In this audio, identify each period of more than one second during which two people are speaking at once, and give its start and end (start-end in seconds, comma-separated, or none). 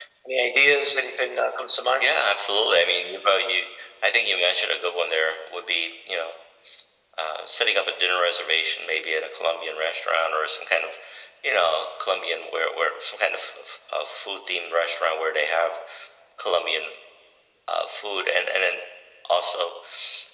none